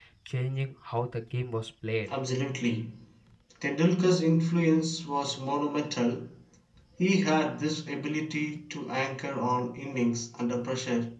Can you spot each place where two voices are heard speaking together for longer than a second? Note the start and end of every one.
none

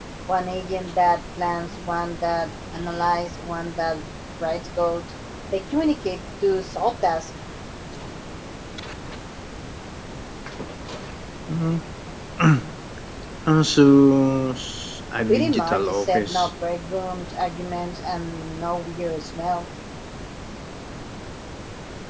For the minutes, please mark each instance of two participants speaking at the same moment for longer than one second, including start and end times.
15.3-16.5

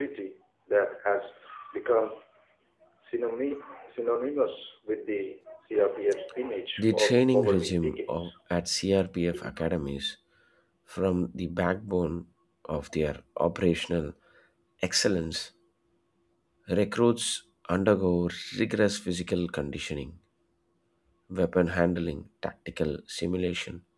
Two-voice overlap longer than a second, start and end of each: 6.8-8.3

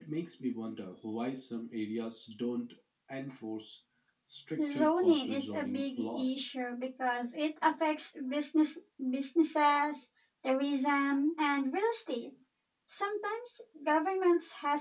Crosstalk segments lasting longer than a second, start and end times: 4.6-6.5

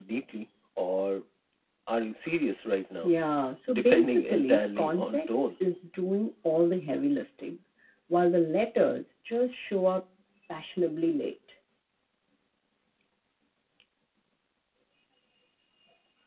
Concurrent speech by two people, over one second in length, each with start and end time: 3.7-5.5

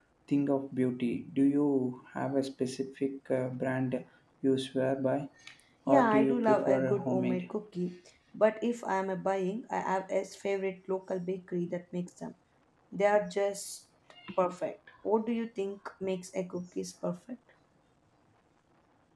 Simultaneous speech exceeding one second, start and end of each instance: 5.9-7.5

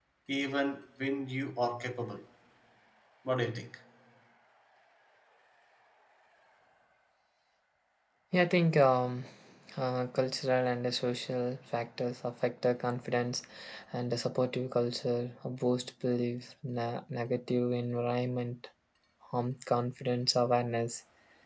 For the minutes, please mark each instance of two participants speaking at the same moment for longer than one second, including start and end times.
none

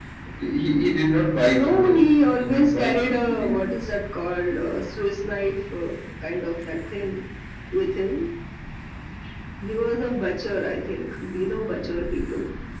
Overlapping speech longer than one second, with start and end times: 1.5-3.6

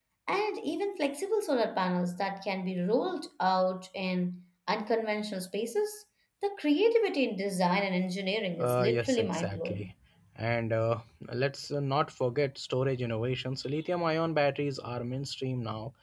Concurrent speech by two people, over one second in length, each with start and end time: 8.6-9.9

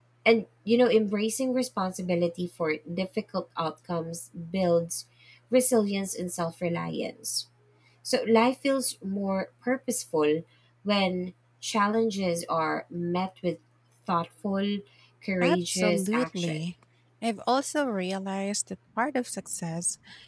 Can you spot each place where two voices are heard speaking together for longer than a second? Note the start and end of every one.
15.4-16.6

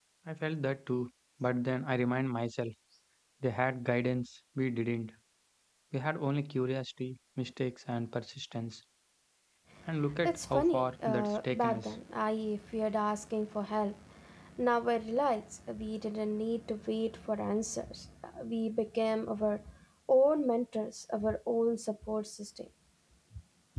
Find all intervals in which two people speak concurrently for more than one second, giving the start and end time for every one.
10.2-11.9

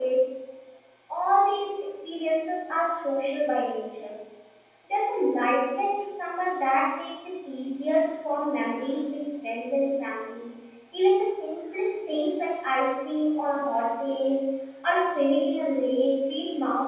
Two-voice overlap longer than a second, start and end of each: none

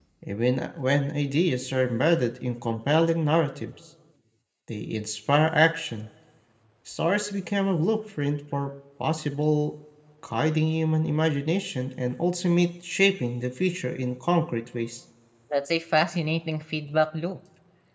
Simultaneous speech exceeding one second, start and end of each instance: none

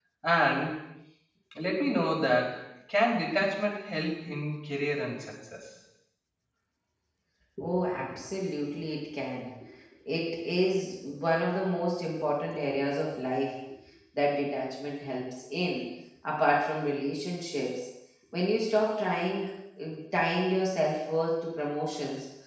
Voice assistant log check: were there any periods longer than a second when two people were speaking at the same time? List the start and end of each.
none

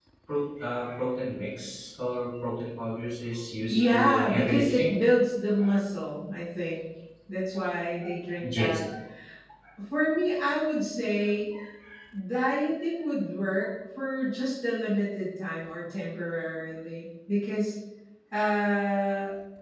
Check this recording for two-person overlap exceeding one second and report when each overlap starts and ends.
3.7-5.0

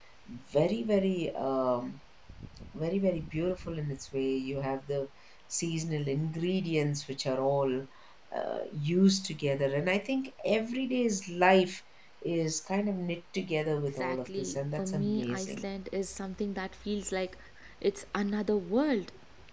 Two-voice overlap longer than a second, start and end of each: 14.0-15.6

